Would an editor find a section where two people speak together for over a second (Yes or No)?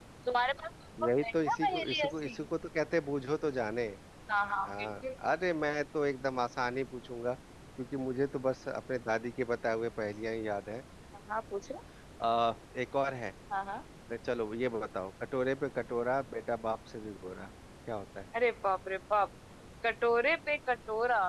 Yes